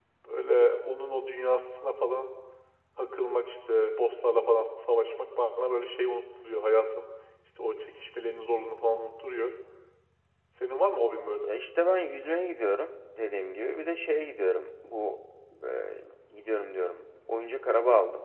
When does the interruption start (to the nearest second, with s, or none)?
none